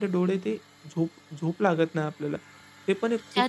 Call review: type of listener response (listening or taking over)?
taking over